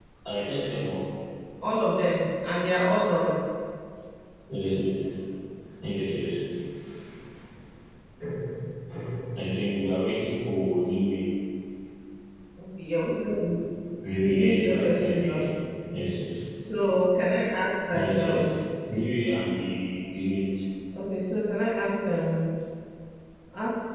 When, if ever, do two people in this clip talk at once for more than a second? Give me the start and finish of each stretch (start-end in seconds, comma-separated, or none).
14.1-15.4